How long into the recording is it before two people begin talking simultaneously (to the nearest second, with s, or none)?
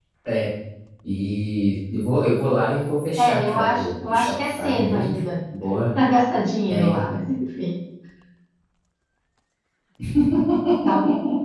3 s